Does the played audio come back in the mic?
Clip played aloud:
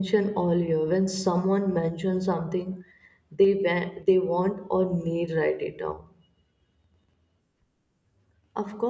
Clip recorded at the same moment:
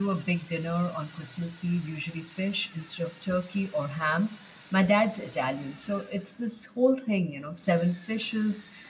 No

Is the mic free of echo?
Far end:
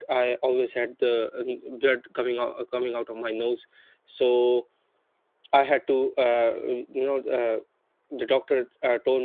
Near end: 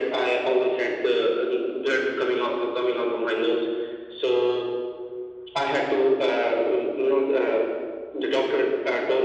No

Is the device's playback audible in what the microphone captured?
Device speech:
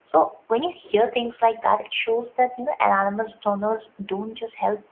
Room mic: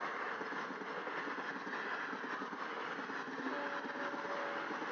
No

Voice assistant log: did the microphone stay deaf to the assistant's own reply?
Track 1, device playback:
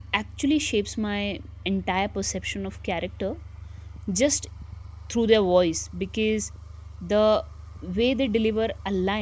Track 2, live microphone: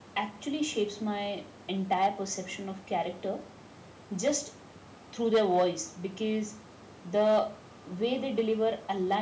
No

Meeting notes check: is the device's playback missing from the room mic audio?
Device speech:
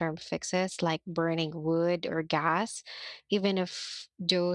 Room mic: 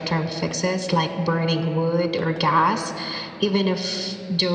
No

